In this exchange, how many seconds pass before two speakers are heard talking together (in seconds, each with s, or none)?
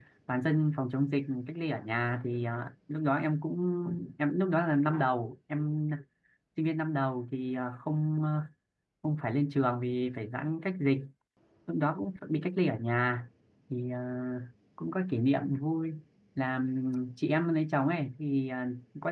none